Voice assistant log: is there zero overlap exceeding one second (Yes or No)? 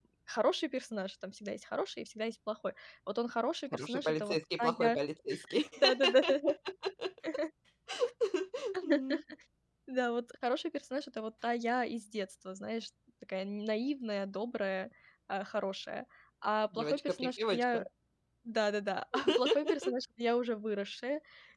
No